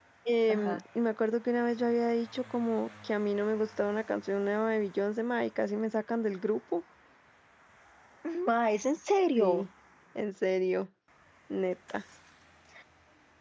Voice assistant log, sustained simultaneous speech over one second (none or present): none